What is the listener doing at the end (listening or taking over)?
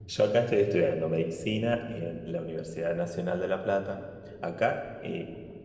listening